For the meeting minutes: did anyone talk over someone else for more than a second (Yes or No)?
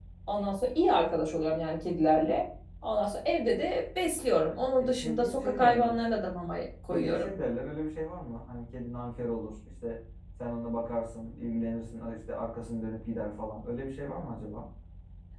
Yes